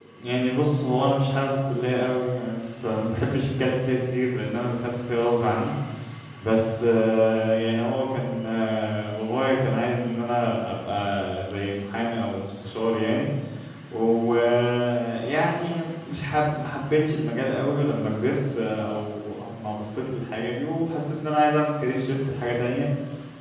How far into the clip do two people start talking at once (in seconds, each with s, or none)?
none